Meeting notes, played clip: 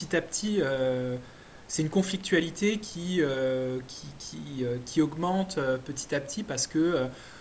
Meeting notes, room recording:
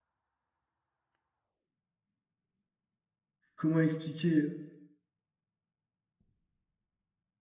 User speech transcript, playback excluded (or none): comment expliquer?